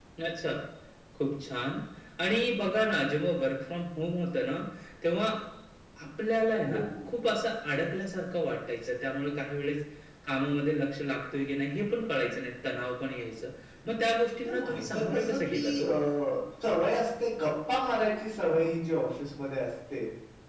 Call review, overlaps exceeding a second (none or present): present